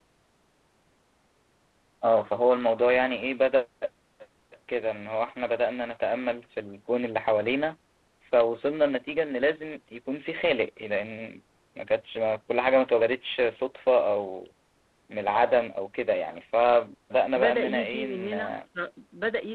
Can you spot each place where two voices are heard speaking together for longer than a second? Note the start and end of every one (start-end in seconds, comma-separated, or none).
17.4-18.6